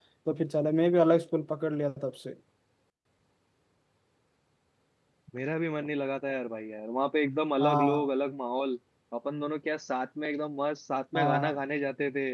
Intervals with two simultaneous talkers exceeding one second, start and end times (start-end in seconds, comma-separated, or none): none